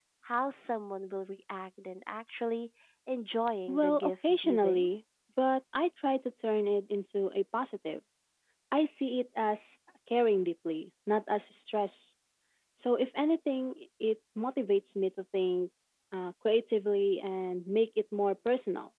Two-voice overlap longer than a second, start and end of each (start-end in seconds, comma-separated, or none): 3.7-4.9